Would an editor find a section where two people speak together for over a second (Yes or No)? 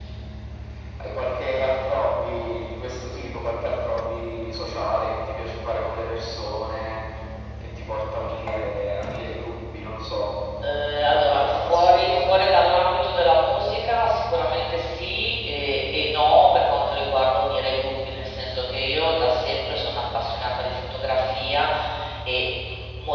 Yes